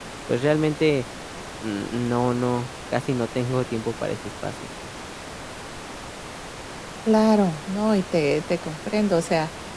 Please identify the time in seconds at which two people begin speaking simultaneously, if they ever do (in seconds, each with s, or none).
none